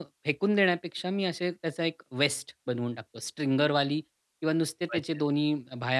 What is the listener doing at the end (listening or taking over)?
listening